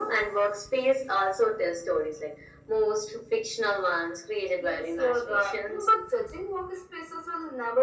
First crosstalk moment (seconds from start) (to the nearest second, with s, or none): 5 s